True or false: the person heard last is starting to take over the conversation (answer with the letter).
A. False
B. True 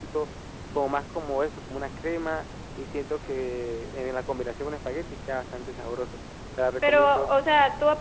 B